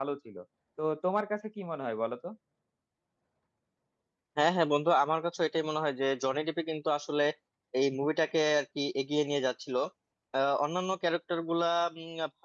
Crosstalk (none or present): none